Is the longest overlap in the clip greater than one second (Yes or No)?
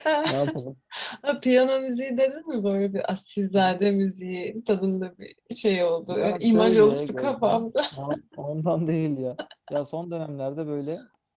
Yes